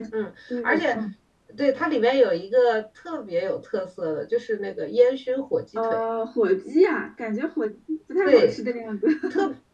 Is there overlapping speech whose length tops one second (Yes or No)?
No